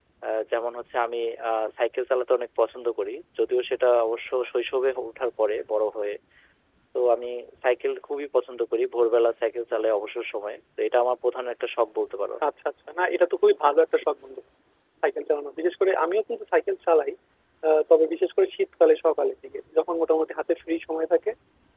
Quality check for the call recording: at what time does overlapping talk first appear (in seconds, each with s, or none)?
none